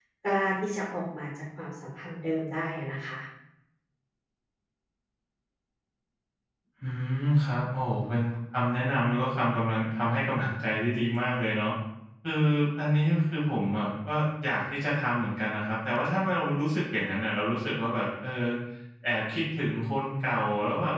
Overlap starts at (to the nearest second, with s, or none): none